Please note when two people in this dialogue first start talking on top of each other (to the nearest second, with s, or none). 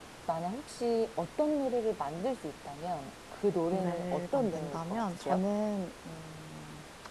4 s